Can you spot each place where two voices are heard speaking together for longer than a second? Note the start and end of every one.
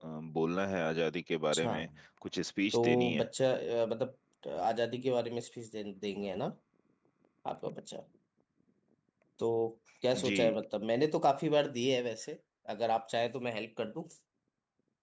none

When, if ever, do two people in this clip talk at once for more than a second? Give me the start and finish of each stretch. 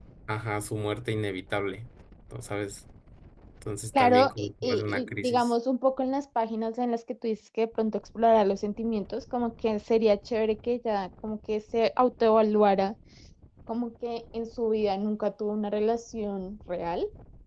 4.0-5.5

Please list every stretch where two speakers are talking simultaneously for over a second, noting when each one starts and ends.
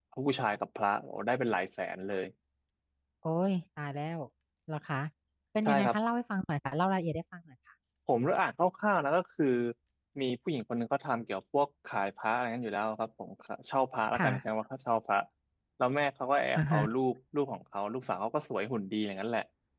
none

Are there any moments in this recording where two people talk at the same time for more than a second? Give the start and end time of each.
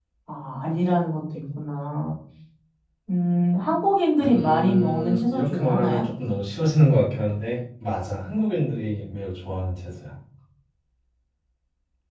4.2-6.0

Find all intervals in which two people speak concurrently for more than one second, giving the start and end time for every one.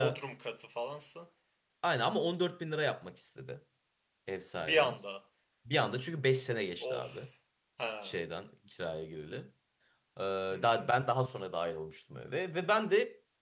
none

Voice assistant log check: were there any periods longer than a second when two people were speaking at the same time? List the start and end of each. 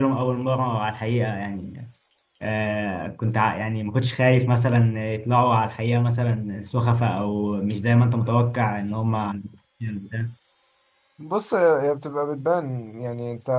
none

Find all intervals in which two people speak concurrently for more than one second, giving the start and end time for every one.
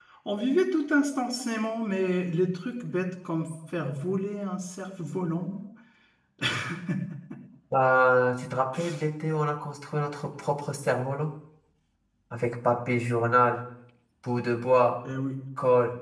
none

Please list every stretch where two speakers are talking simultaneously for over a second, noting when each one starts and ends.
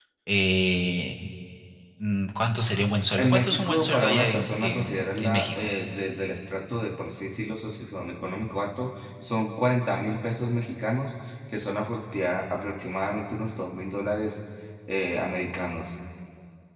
3.2-5.7

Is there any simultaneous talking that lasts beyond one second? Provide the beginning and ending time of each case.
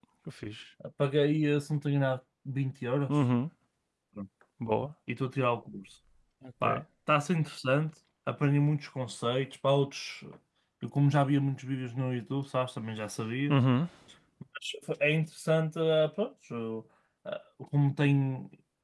none

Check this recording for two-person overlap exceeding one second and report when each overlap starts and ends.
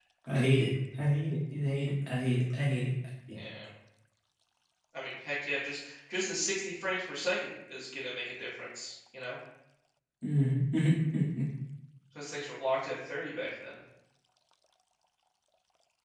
none

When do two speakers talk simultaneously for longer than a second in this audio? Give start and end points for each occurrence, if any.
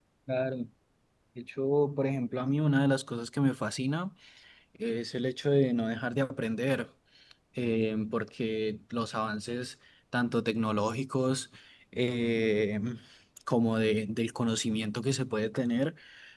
none

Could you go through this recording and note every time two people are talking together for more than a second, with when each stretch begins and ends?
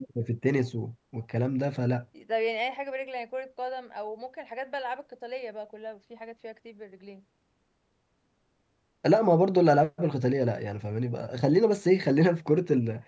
none

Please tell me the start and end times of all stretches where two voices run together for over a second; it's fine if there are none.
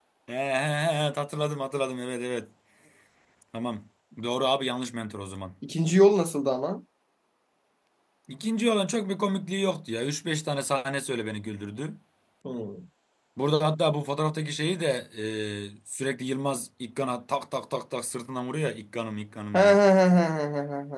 none

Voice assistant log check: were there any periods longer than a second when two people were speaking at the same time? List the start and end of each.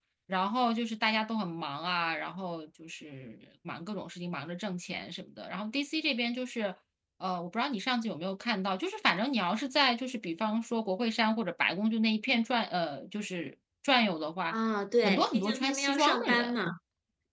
15.0-16.5

